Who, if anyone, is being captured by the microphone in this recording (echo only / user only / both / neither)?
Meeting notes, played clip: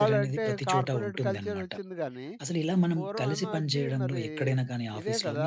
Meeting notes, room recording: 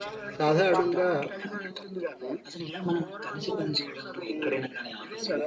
both